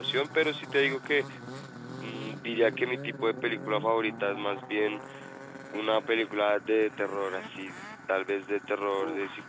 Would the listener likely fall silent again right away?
Yes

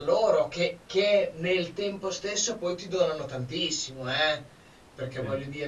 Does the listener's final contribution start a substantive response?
No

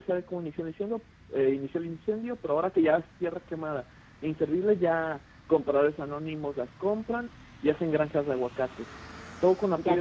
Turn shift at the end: Yes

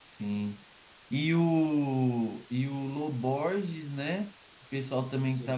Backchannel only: Yes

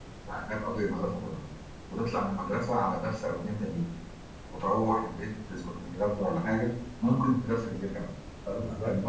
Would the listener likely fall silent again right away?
No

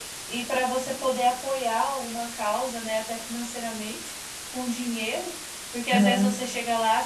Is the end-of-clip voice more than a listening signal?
No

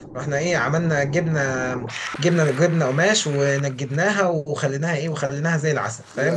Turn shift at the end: No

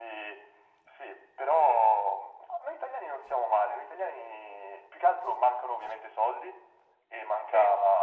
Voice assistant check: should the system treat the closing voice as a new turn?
No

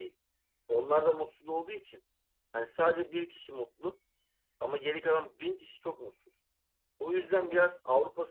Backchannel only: Yes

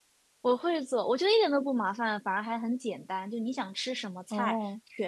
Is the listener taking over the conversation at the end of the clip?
No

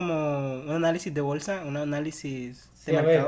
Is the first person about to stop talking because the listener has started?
Yes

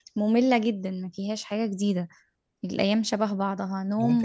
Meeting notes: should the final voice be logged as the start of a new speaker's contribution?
Yes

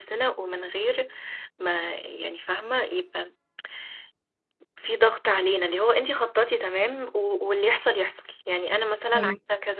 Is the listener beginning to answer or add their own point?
No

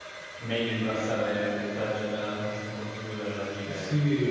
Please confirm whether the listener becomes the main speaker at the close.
Yes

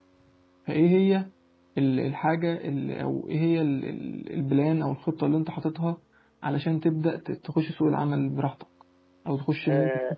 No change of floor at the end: No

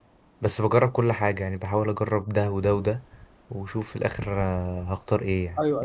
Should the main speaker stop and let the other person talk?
Yes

